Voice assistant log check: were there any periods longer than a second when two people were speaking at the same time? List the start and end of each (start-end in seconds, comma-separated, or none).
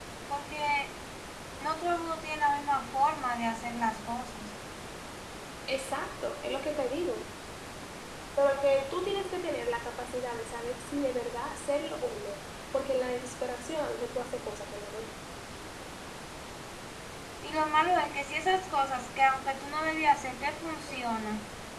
none